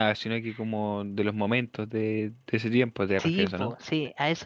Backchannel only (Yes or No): No